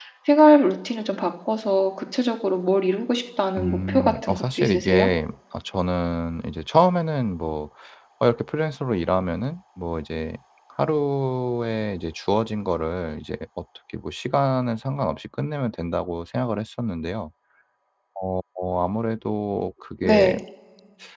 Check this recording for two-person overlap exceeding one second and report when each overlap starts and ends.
3.6-5.1

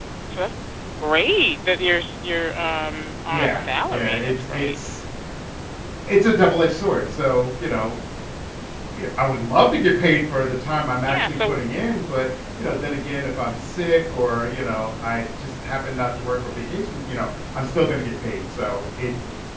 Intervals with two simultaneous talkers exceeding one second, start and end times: 3.3-4.8

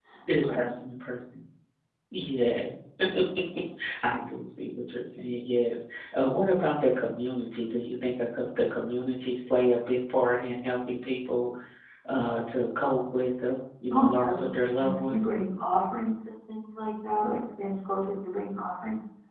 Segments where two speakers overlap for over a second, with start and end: 13.9-15.2

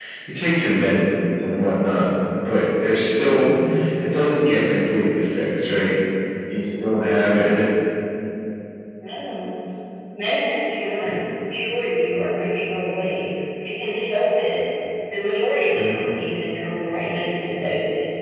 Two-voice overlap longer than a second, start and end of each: none

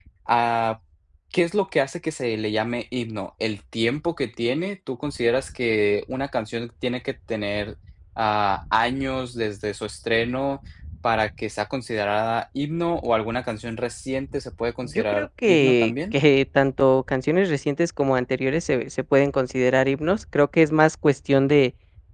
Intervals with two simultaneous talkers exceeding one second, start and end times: 14.8-16.1

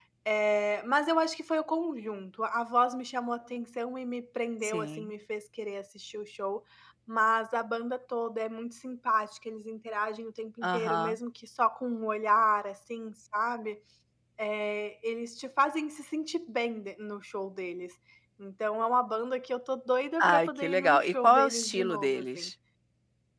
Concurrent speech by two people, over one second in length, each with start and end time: 20.2-22.5

